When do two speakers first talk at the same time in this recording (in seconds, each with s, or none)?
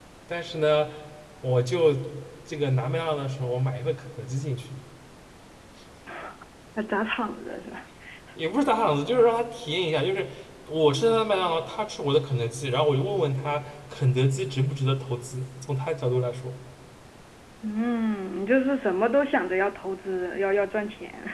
none